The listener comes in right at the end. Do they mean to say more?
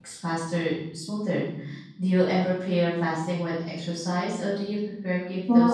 Yes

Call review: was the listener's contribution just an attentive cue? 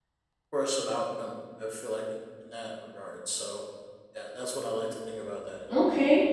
No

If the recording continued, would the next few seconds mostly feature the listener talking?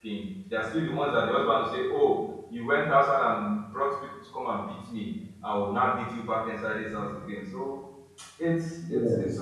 Yes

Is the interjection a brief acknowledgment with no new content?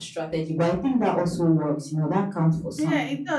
No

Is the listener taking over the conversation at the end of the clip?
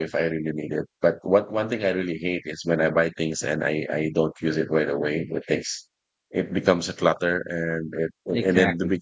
No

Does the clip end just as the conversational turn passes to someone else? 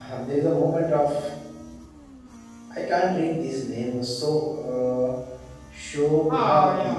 Yes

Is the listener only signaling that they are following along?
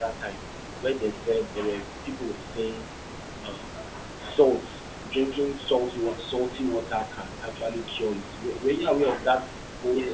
No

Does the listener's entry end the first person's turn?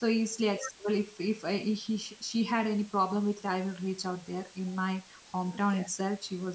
No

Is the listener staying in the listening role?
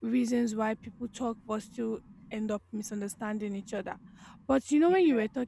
Yes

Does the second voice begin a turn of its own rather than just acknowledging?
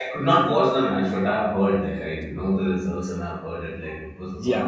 Yes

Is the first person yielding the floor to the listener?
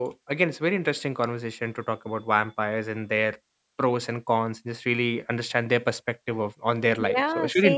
Yes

